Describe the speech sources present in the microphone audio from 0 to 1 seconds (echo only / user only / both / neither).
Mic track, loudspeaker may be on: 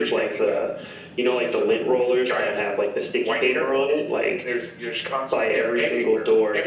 echo only